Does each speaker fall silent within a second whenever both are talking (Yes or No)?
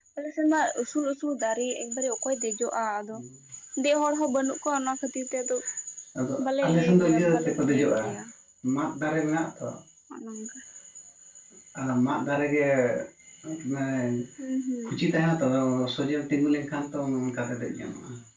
No